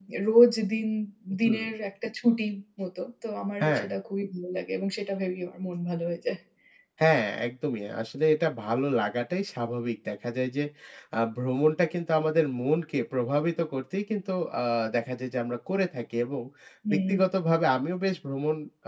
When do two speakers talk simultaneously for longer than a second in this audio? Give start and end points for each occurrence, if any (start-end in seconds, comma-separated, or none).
none